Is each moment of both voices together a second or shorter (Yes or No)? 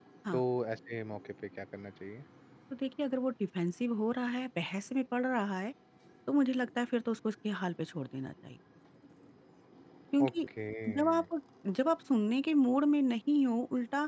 Yes